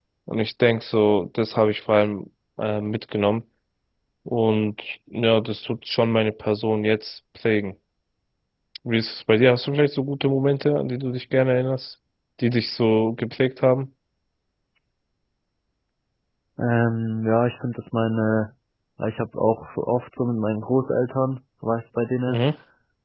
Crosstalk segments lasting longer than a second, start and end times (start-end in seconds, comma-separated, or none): none